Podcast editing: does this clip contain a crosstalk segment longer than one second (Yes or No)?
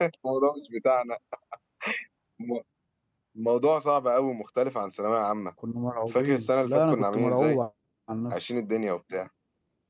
Yes